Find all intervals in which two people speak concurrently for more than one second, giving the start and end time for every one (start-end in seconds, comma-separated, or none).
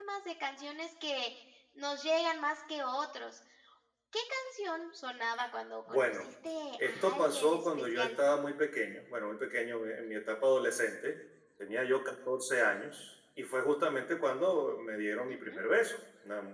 6.8-8.1